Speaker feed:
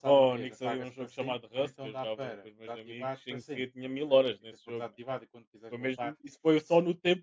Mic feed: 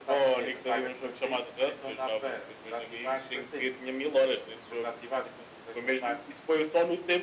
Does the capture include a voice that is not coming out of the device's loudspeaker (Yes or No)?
No